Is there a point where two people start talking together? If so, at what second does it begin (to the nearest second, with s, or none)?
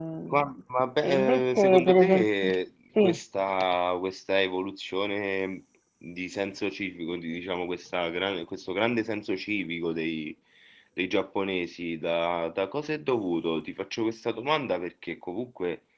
1 s